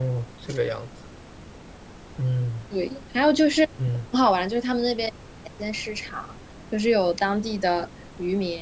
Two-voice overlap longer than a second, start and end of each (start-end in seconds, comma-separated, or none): none